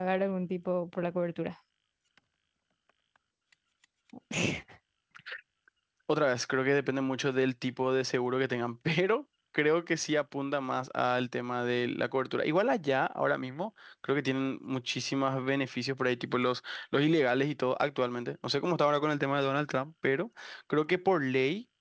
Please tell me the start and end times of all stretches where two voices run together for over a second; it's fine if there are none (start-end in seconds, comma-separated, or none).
none